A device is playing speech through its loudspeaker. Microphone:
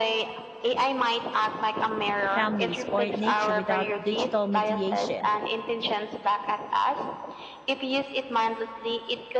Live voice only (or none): families, or nature without digital mediation.